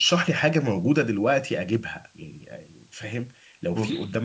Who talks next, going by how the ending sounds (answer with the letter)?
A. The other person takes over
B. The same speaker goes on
B